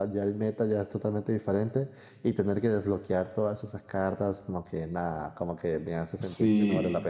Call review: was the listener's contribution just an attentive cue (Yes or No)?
No